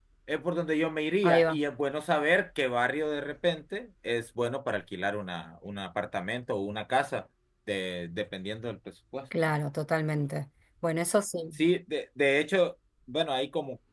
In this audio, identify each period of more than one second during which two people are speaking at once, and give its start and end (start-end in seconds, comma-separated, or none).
none